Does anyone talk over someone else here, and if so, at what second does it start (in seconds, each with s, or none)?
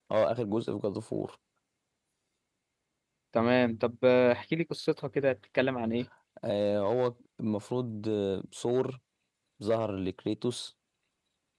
none